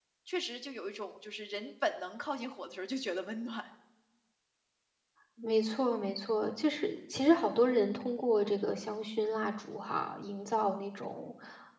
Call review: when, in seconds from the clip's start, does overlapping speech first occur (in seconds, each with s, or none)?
none